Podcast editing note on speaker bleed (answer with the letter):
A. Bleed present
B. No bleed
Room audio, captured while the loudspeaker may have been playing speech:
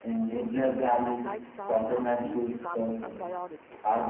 A